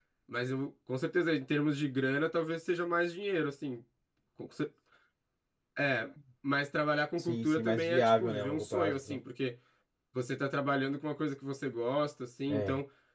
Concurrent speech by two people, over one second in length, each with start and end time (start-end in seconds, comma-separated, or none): 7.2-9.0